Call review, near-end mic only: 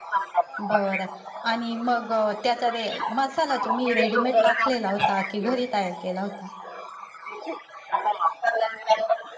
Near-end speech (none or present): present